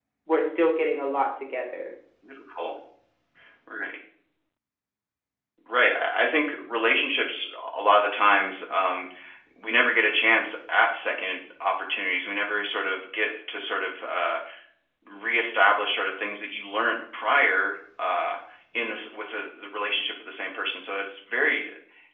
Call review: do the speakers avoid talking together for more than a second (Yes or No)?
Yes